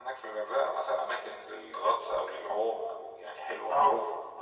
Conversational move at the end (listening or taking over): taking over